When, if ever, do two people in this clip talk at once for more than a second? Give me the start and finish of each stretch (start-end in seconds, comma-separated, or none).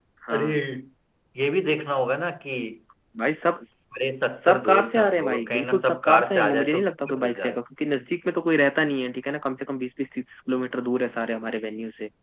4.4-7.6